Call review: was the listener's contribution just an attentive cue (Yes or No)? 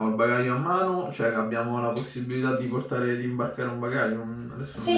No